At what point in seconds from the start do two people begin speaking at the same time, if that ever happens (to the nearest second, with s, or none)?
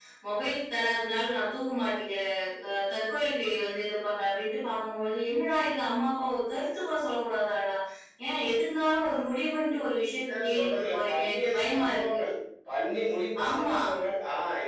10 s